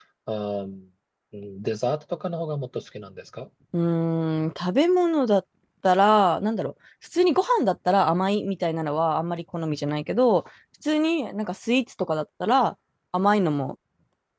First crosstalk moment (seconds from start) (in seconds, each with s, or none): none